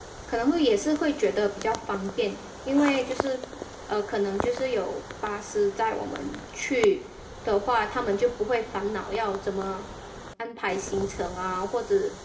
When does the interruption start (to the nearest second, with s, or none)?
none